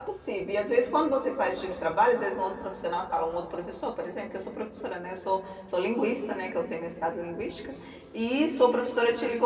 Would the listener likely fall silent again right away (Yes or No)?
Yes